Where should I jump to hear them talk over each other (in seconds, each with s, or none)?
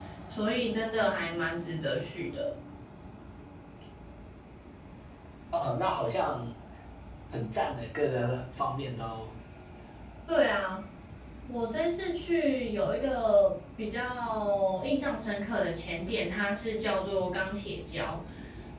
none